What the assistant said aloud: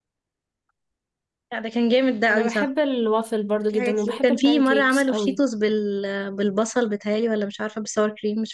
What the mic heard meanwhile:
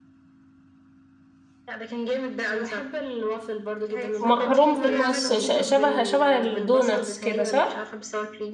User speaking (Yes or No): Yes